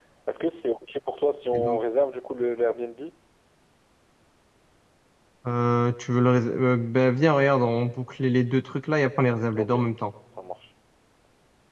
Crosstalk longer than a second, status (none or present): none